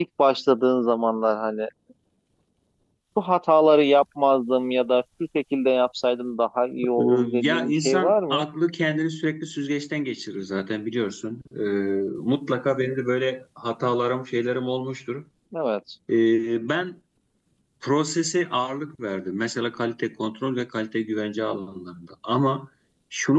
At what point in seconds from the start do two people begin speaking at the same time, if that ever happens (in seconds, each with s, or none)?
6.8 s